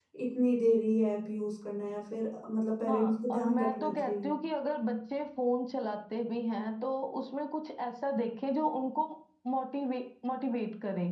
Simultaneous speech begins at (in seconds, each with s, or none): 2.9 s